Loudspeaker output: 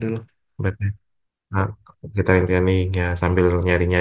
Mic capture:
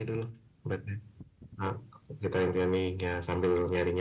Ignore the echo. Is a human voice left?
No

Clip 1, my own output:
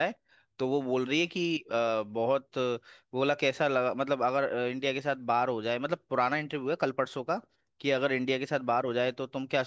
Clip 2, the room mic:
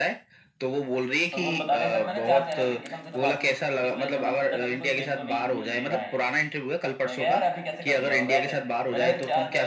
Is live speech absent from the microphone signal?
No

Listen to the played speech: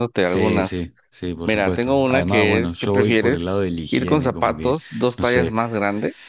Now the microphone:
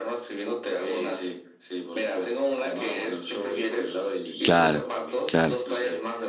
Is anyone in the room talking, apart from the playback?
Yes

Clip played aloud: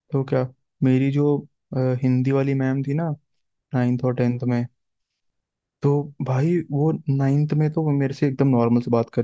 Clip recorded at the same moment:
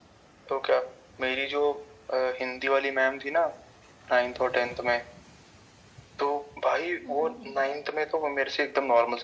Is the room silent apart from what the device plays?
No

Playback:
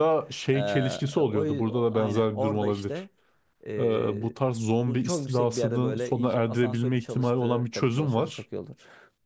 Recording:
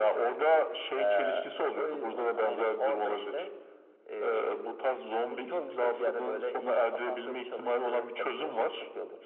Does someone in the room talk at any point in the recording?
No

